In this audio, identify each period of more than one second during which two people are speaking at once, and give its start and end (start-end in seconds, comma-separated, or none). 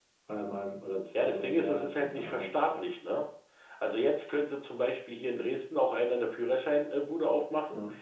1.2-2.9